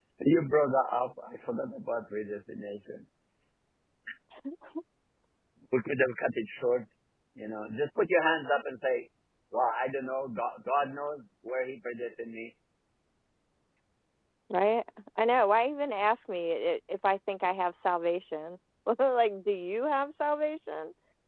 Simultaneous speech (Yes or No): No